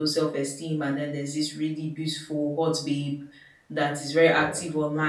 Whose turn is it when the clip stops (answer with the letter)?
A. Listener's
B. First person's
B